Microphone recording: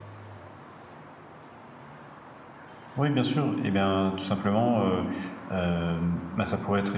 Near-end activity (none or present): present